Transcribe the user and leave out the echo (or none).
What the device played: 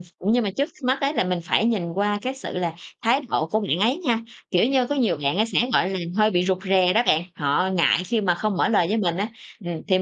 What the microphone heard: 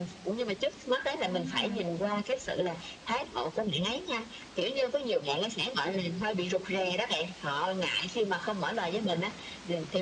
Ừm.